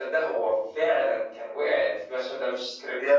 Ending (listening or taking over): listening